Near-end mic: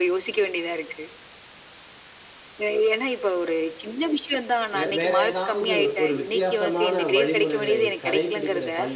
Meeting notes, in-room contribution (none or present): present